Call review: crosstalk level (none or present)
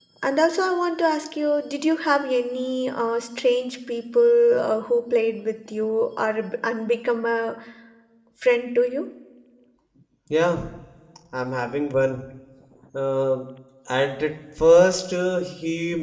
none